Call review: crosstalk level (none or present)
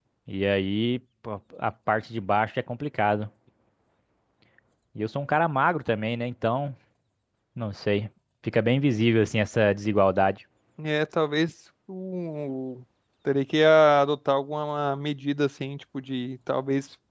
none